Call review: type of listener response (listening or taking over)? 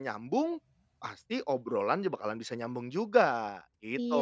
taking over